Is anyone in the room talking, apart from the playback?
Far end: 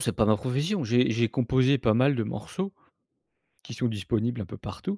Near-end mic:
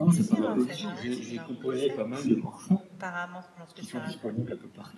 Yes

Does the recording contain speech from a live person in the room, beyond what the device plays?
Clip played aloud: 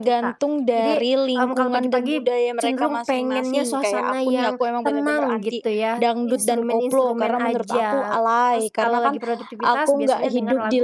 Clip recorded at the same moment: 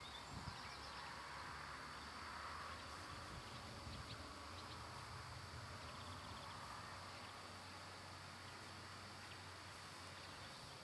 No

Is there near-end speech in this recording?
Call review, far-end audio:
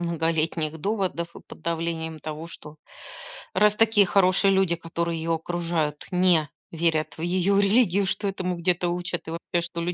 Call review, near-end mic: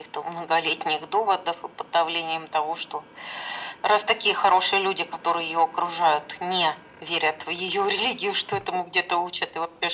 No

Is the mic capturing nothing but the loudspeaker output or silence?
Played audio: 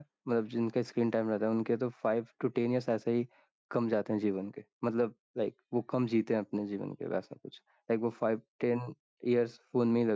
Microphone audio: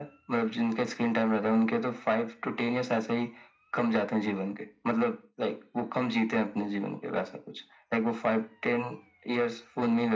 Yes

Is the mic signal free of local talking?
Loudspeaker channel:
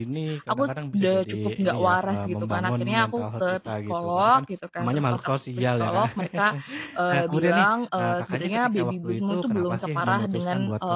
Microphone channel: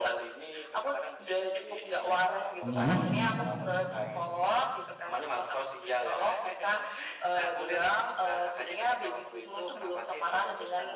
No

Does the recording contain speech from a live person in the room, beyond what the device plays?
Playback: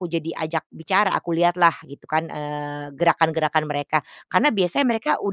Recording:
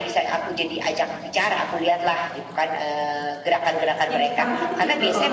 Yes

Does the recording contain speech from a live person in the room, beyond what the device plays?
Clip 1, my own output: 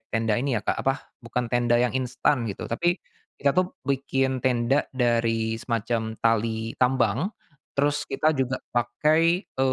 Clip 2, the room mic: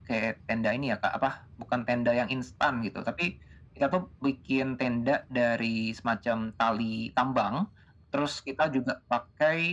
No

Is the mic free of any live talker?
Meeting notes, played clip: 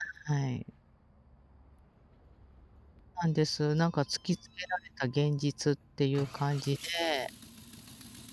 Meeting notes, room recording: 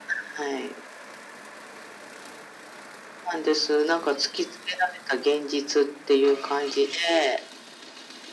Yes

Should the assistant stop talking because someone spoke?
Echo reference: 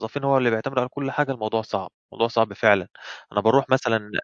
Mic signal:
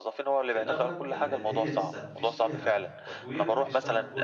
Yes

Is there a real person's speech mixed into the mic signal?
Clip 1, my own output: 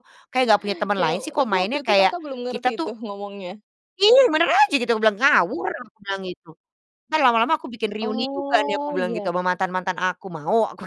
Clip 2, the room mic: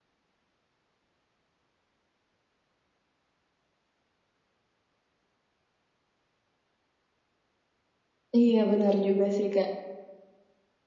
Yes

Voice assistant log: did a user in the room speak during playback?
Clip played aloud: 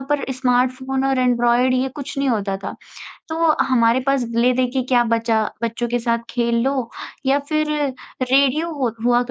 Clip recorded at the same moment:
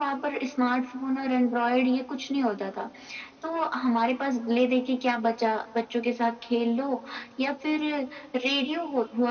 No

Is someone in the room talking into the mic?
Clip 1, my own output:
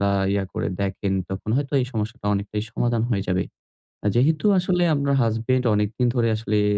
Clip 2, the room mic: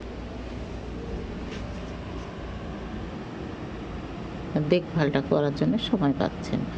Yes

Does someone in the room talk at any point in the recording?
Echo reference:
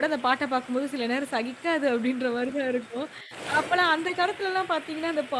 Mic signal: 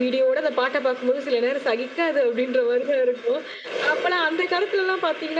No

